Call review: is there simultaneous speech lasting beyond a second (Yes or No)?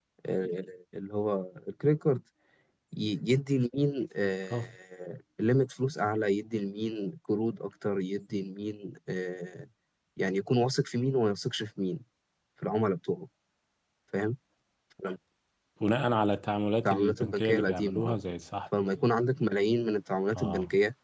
Yes